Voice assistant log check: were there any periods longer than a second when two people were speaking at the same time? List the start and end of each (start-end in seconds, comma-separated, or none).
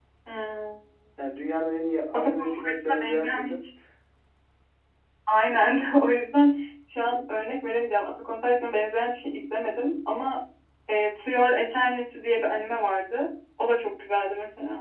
2.1-3.5